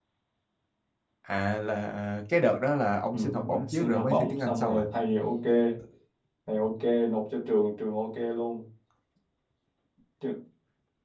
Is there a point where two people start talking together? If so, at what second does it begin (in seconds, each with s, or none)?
3.1 s